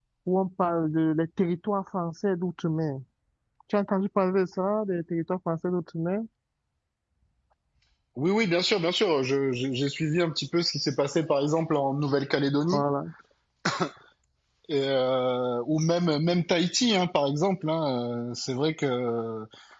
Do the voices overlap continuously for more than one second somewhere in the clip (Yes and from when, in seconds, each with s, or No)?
No